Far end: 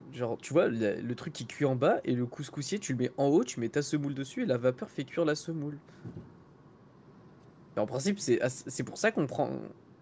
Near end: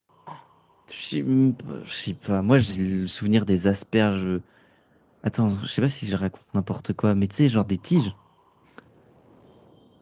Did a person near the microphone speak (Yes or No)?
Yes